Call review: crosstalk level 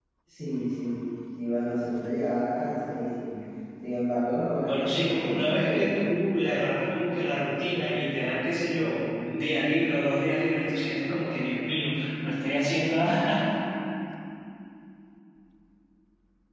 present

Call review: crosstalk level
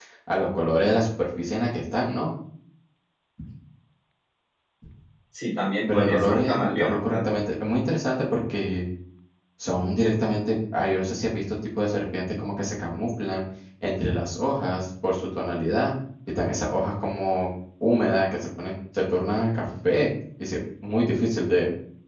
present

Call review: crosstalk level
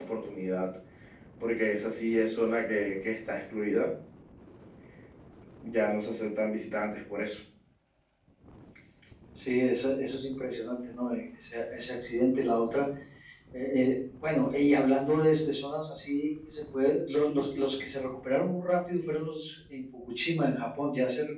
none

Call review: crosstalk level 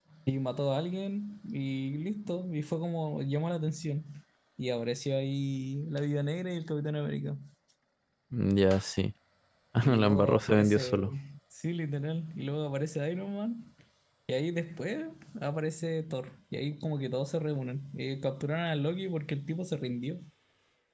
present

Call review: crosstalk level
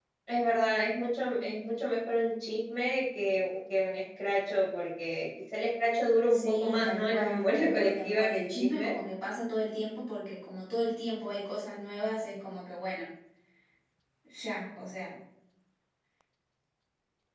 present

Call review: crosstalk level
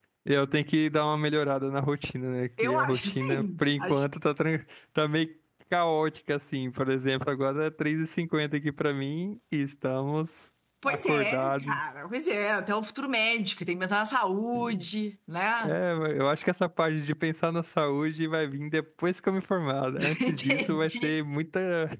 present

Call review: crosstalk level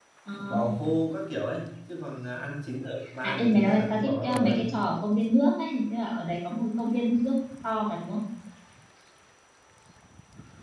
present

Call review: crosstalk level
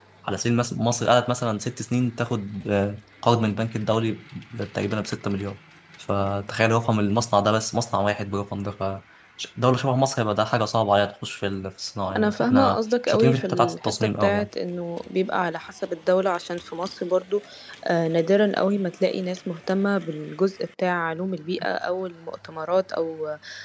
present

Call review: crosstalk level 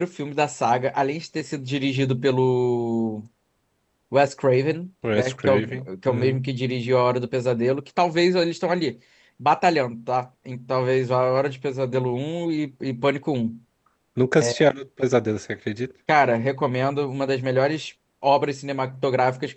present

